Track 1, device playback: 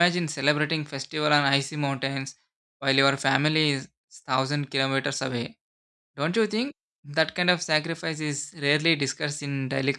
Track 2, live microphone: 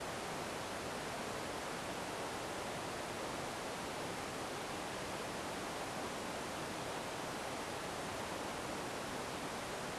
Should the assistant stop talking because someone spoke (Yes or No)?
No